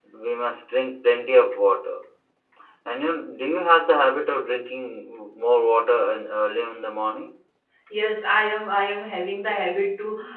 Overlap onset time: none

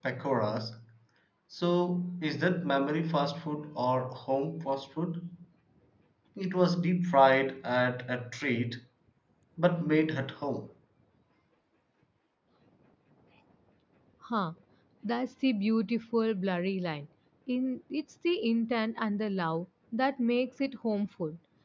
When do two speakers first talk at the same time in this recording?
none

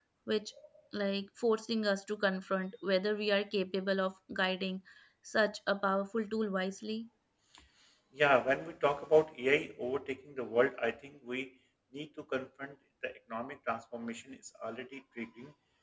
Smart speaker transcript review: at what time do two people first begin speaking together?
none

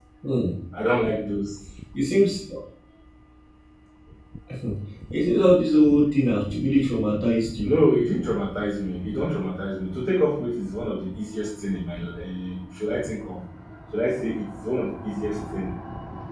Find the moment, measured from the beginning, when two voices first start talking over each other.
none

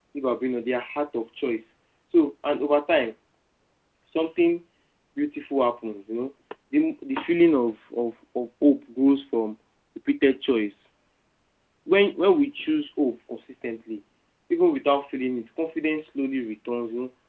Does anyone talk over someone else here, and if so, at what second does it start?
none

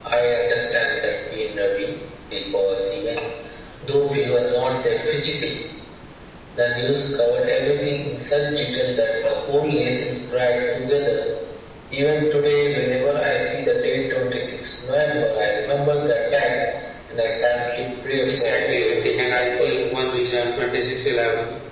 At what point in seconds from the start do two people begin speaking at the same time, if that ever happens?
18.2 s

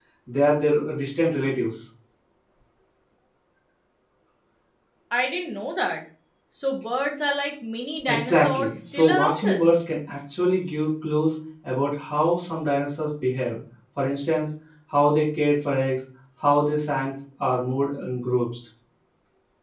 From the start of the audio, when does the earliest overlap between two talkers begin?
8.1 s

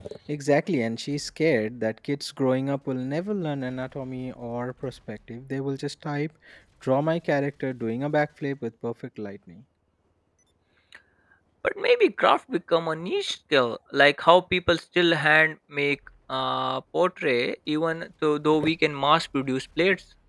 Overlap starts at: none

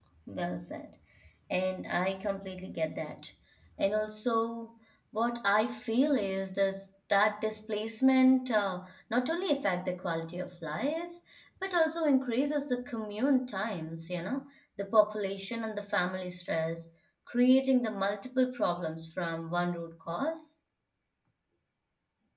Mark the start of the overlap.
none

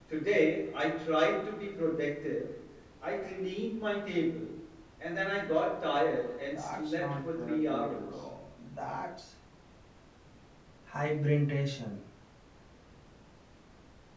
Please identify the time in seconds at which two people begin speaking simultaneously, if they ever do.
6.5 s

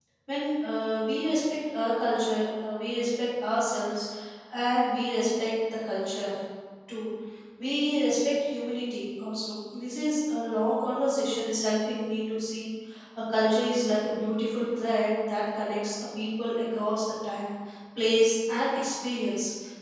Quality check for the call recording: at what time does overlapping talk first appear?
none

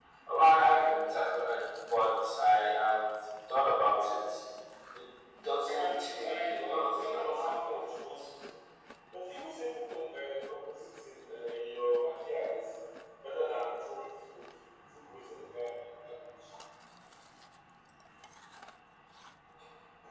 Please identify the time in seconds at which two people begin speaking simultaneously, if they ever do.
5.7 s

